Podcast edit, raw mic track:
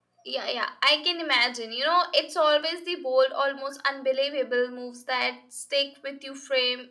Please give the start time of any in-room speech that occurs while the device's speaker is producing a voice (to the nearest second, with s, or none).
none